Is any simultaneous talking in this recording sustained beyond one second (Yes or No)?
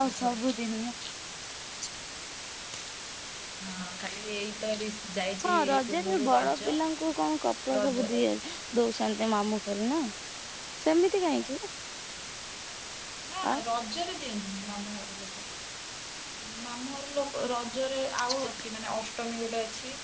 Yes